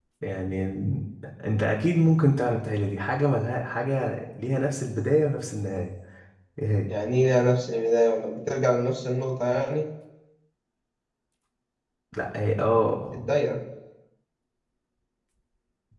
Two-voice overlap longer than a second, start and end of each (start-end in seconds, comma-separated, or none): none